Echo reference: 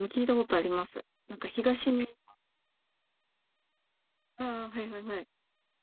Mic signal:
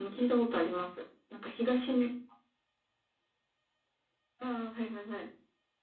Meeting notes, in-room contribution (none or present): none